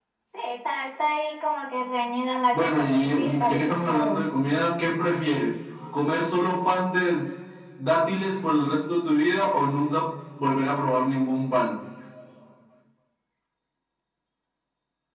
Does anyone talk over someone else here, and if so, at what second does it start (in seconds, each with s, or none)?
2.5 s